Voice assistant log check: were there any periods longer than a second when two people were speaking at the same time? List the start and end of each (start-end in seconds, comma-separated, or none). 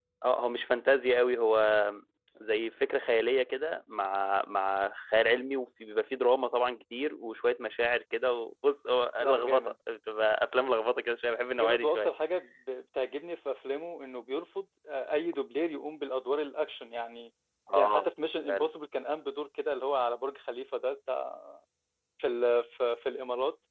none